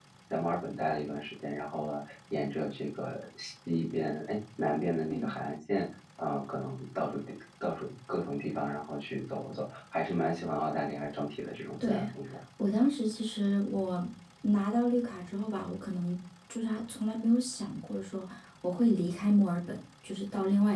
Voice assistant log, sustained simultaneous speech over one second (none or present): none